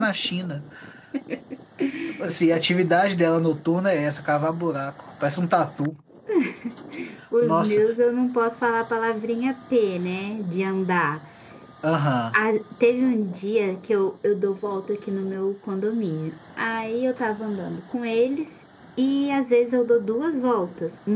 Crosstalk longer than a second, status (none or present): none